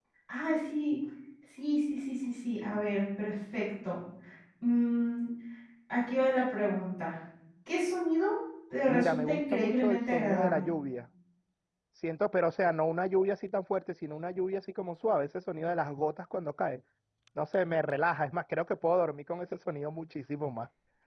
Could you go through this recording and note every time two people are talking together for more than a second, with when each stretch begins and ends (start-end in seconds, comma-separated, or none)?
8.9-10.6